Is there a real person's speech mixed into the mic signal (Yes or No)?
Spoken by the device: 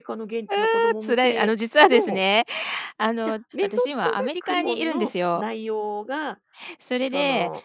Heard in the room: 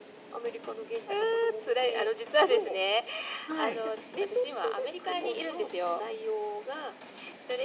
Yes